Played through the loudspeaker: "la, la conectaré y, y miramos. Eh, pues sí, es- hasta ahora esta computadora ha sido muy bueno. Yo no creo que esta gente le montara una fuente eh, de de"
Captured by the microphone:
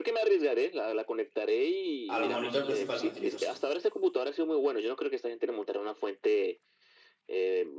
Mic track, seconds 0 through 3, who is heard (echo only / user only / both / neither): both